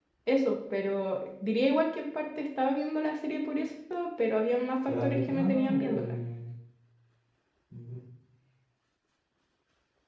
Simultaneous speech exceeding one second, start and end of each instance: 4.8-6.1

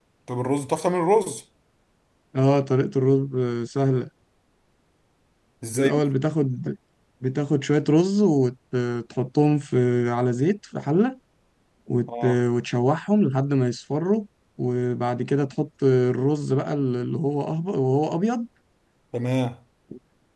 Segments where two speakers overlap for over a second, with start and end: none

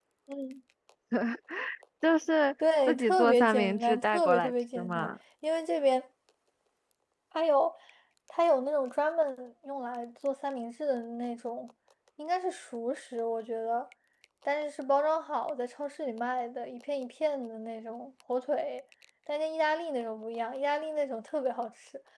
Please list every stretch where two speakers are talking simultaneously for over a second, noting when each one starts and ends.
2.9-5.1

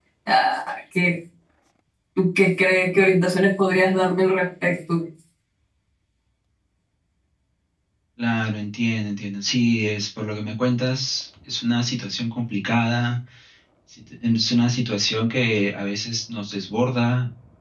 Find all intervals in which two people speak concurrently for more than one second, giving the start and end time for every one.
none

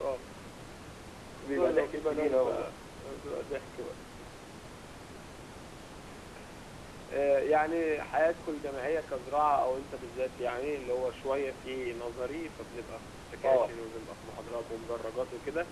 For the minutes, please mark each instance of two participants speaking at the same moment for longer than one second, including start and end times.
1.4-2.7

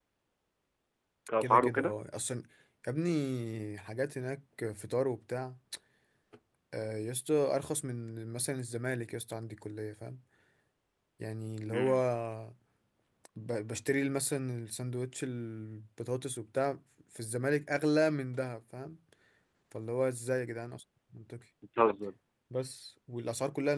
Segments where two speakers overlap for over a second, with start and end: none

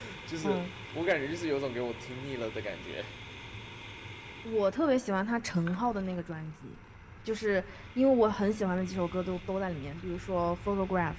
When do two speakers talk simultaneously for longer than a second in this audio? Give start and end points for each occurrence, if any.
none

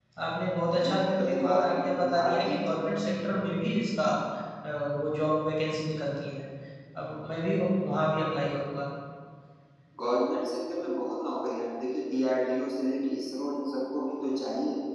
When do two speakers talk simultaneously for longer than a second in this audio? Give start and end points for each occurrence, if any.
0.7-2.9

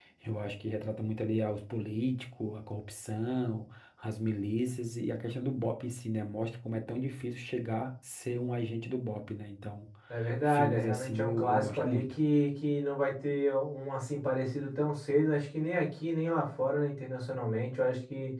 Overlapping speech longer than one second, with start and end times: 10.4-12.1

